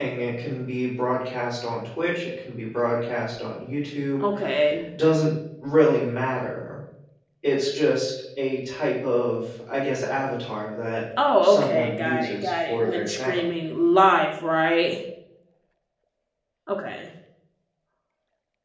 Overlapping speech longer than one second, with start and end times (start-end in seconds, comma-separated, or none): 11.4-13.4